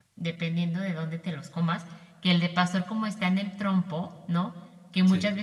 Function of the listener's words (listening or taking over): listening